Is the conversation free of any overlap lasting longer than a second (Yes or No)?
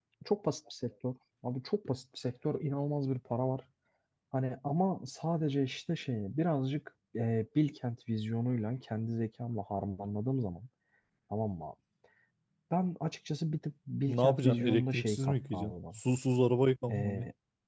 No